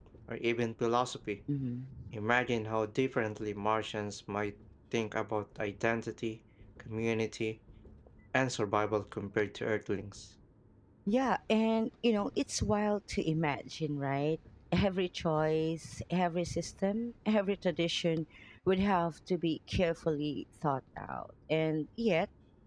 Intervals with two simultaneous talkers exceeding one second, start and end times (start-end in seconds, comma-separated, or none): none